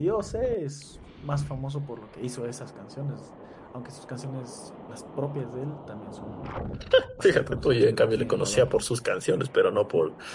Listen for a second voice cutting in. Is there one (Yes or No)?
Yes